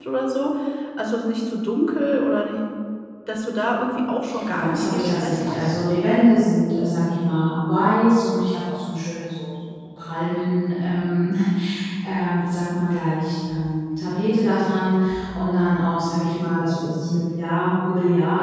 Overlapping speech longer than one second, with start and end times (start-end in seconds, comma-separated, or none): 3.9-5.6